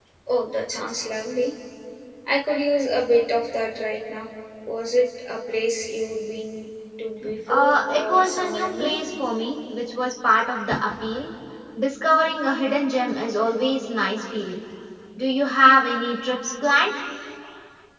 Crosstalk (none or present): present